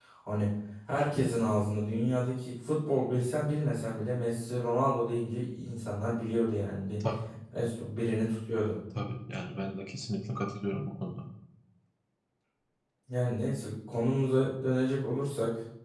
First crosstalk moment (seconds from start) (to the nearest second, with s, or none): none